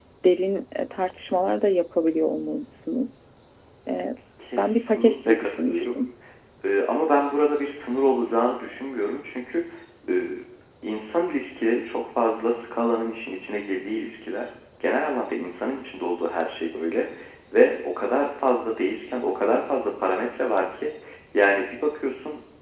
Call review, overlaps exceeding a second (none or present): present